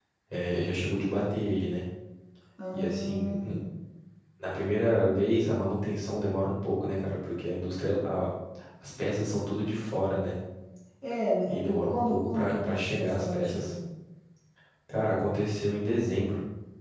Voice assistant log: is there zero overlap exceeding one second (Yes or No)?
No